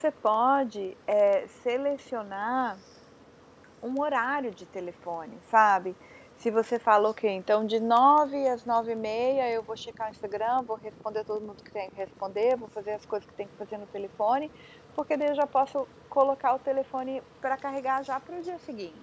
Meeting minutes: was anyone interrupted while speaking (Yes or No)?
No